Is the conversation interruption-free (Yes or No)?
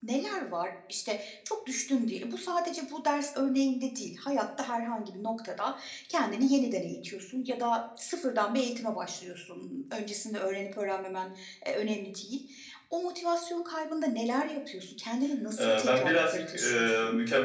No